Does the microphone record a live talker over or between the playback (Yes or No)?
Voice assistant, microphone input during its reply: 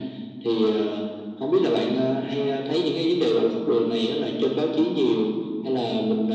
No